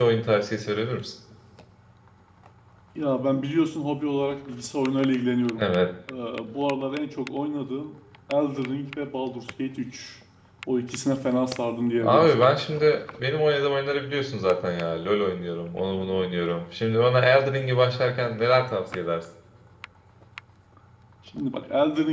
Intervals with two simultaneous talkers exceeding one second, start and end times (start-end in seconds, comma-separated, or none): none